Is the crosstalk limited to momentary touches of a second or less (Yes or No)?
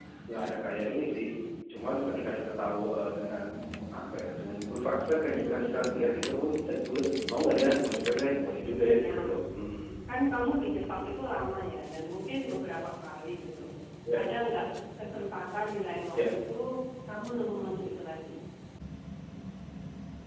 No